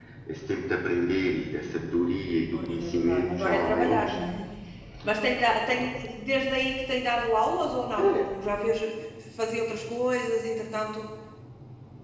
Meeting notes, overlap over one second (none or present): present